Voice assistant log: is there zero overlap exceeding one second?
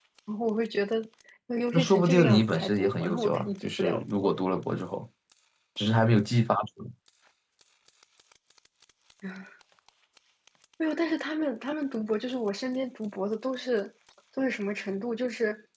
No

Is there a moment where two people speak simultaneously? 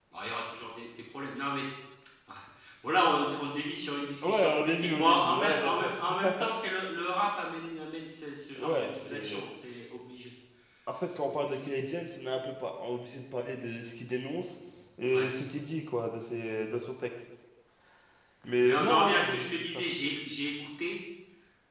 Yes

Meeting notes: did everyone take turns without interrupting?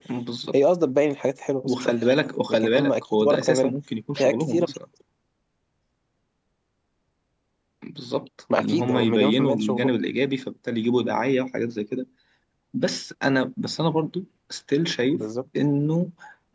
No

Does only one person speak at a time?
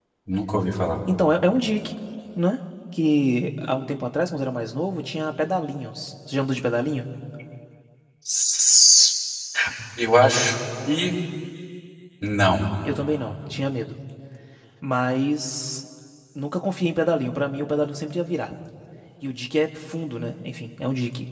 Yes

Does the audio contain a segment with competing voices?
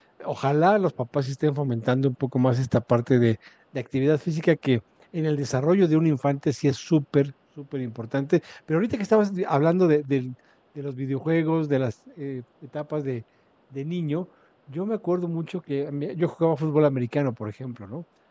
No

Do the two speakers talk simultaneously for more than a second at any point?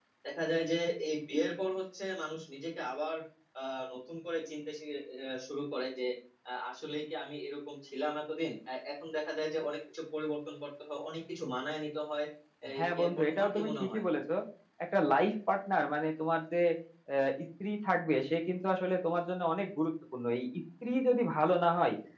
Yes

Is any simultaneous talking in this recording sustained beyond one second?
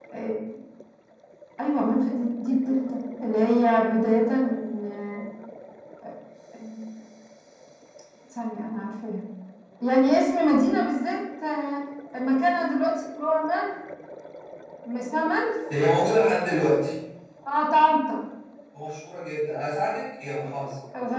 No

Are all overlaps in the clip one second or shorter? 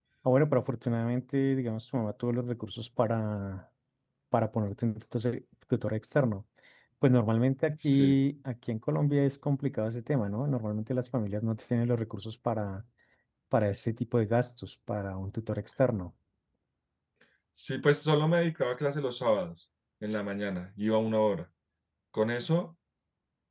Yes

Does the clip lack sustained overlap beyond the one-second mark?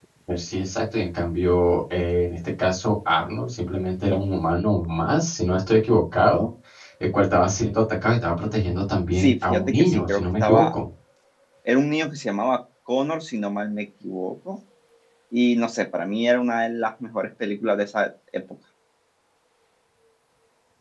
No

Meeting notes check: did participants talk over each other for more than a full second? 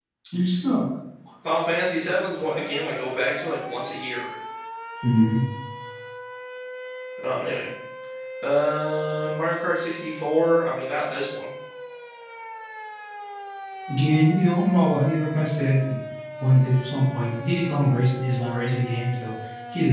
No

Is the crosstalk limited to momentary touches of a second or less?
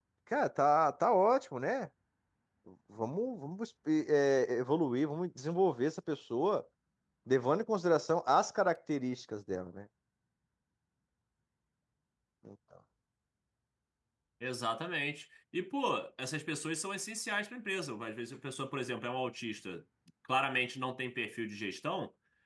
Yes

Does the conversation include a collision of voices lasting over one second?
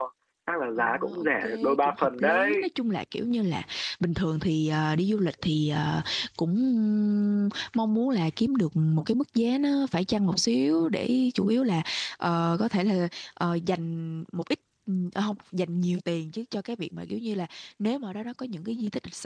Yes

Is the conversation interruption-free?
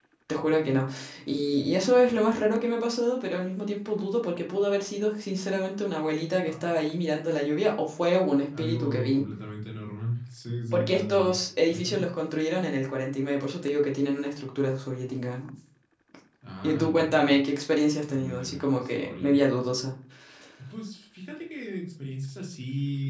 No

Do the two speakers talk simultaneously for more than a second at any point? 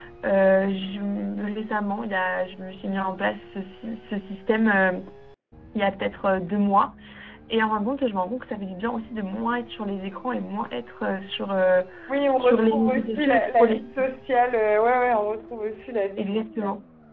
Yes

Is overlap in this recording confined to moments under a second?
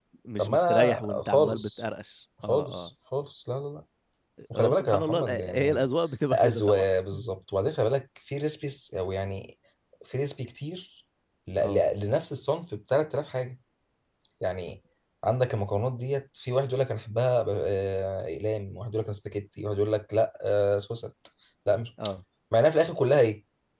No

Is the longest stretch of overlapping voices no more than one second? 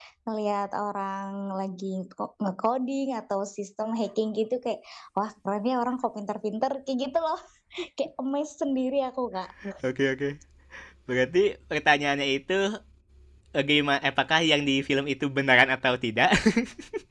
Yes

